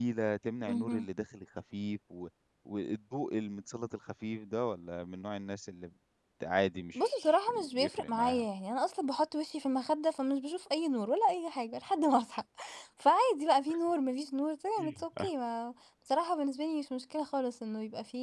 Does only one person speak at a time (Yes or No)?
No